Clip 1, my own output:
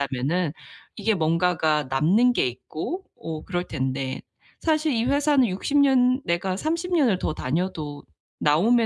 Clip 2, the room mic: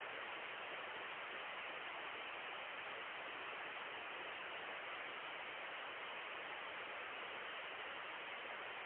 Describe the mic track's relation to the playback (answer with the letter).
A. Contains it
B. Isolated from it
B